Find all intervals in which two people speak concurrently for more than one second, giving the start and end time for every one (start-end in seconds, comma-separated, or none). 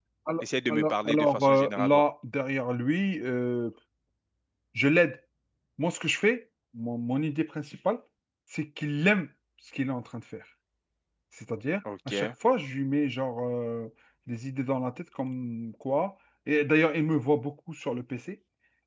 0.7-2.0